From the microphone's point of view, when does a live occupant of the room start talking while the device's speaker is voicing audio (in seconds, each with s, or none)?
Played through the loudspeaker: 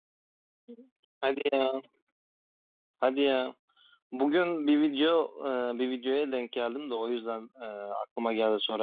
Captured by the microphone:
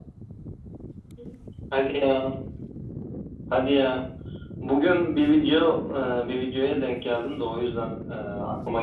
none